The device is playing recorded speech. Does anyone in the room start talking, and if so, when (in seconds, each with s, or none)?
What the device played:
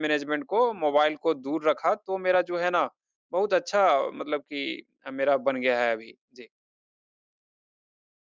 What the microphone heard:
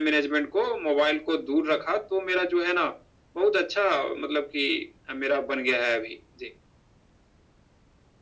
none